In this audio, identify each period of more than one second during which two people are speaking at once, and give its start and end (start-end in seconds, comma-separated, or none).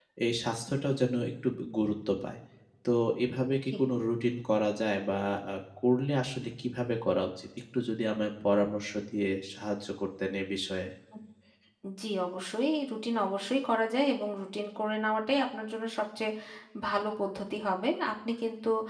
none